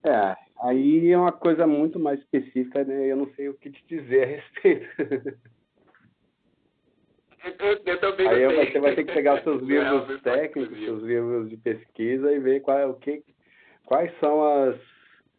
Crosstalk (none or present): present